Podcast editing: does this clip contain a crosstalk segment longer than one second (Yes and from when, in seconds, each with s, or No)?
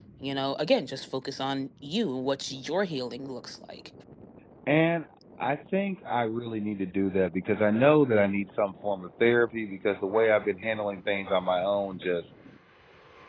No